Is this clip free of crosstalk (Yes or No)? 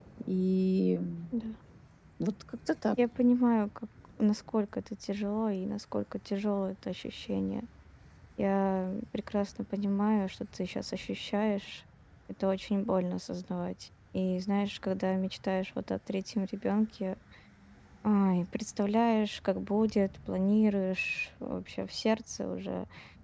Yes